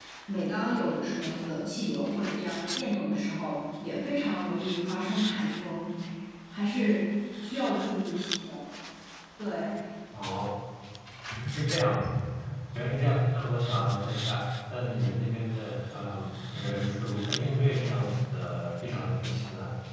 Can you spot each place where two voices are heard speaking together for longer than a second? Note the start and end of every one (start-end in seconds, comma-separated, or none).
none